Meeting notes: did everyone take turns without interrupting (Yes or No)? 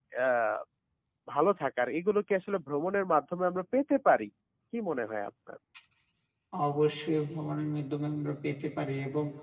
Yes